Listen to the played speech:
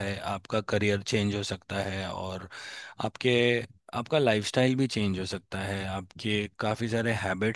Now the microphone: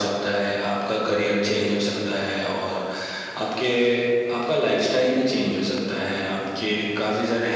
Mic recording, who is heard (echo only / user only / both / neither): echo only